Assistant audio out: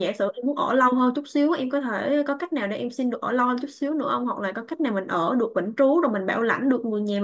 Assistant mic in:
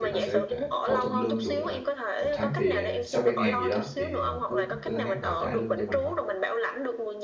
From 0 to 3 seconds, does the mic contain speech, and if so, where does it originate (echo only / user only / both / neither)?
both